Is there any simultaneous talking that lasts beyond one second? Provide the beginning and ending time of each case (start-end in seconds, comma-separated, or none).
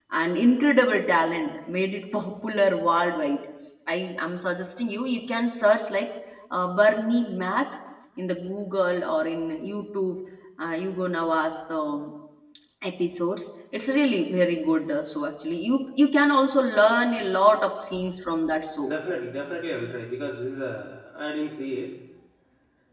none